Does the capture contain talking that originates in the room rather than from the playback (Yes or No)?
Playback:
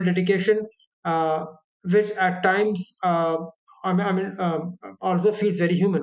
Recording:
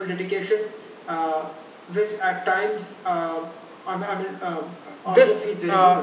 Yes